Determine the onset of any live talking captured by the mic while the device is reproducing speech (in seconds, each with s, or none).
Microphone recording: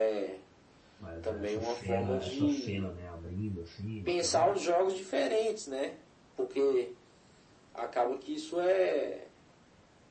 1.0 s